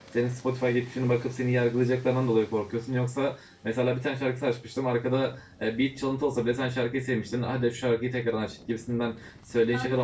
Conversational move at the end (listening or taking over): listening